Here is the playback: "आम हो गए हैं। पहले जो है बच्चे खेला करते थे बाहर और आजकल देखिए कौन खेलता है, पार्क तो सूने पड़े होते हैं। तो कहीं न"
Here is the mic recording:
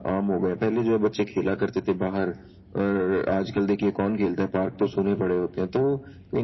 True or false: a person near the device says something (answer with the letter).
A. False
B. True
A